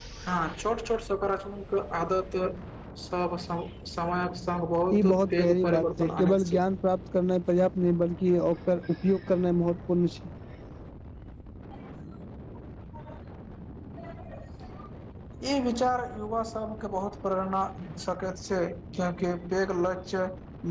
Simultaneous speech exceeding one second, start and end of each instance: 5.1-6.6

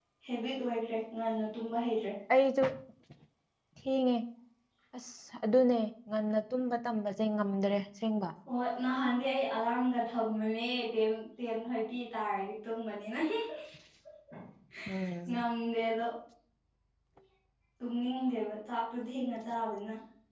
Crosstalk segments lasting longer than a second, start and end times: none

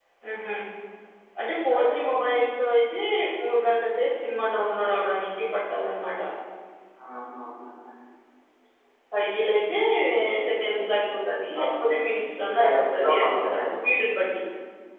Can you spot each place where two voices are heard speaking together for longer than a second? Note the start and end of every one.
12.6-13.9

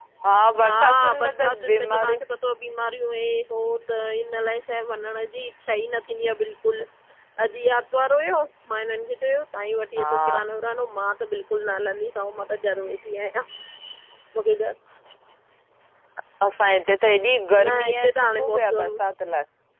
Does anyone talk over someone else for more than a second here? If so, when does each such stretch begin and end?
0.6-2.2, 17.6-18.9

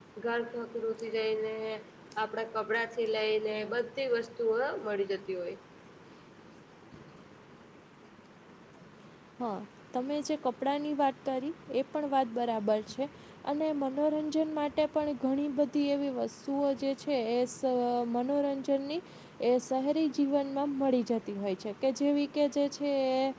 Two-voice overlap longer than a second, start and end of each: none

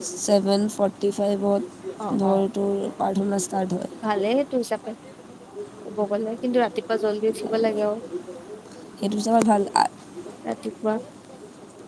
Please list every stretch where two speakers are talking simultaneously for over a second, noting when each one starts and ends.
none

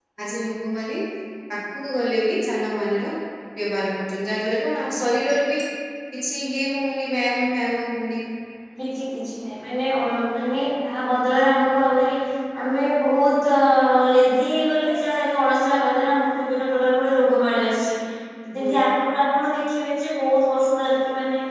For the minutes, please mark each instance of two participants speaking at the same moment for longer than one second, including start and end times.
none

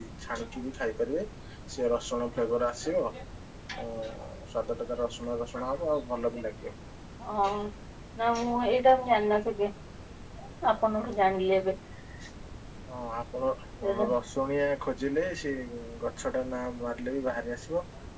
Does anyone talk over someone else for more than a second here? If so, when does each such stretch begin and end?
none

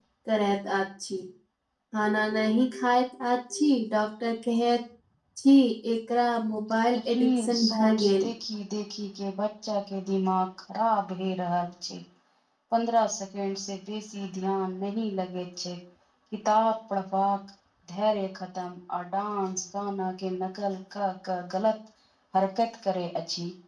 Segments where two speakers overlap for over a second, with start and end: 7.0-8.3

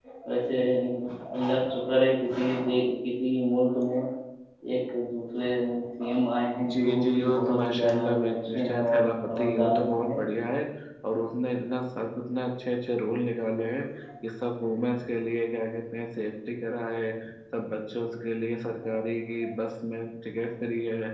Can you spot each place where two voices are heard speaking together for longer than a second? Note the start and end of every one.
6.7-10.2

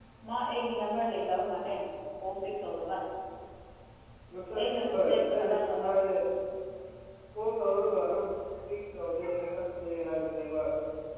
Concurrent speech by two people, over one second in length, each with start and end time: 4.5-5.9

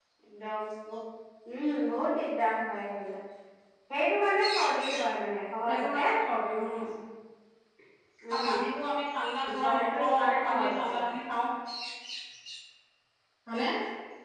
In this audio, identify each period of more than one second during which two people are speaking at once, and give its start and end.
9.6-11.1

